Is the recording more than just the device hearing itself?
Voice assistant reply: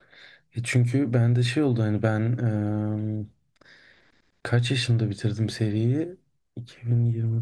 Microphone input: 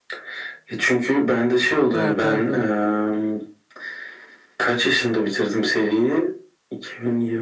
Yes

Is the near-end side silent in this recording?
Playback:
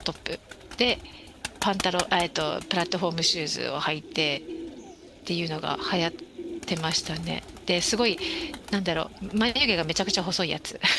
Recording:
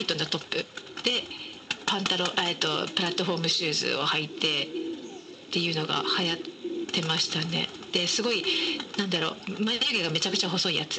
Yes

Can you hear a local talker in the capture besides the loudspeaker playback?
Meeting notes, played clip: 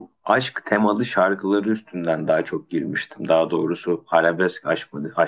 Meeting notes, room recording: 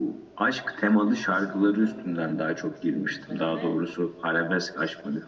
Yes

